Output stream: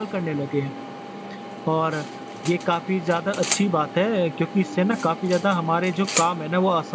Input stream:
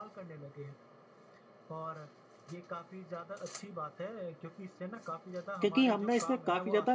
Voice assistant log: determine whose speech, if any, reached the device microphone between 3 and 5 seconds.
echo only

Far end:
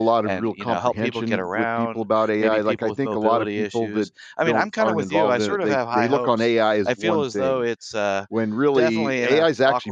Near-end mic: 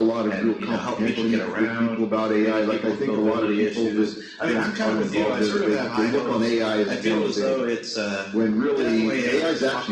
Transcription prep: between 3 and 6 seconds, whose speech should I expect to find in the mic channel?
echo only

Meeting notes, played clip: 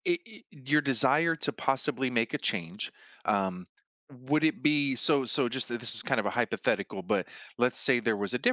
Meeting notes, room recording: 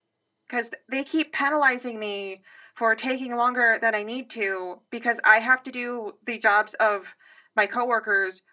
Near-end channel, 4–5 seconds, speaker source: user only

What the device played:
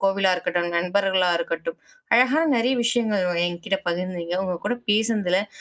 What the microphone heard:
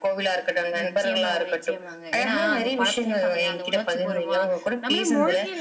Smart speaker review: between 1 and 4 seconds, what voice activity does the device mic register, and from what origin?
both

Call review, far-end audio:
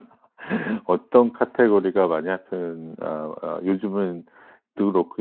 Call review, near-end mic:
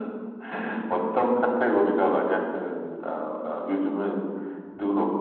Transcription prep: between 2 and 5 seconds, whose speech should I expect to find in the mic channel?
echo only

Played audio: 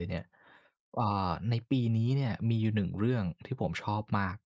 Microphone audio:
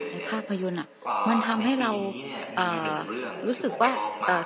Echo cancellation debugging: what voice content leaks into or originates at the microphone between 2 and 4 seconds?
both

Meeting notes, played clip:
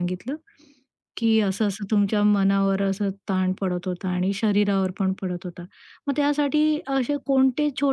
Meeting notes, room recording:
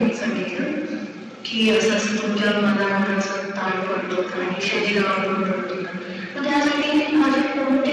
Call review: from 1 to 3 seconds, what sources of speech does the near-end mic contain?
echo only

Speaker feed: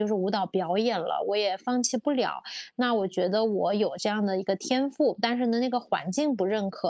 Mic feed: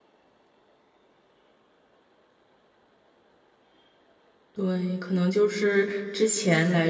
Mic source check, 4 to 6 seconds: user only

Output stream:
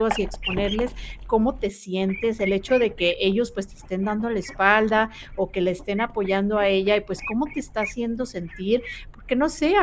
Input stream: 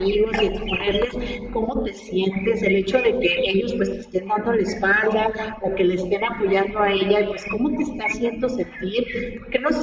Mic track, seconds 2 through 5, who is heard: echo only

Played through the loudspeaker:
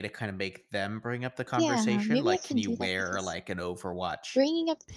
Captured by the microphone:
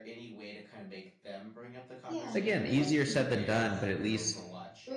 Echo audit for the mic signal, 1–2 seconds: echo only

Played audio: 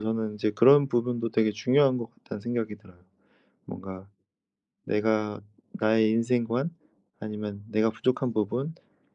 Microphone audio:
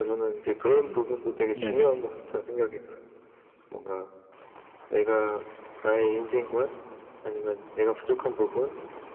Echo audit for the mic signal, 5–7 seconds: echo only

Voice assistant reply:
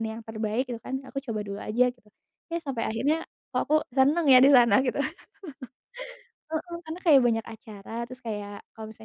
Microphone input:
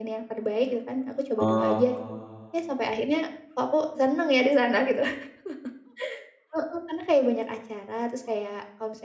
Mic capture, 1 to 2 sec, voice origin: both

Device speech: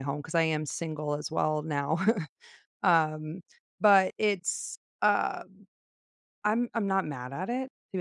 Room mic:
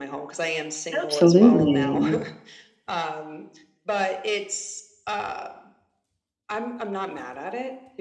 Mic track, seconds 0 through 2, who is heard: both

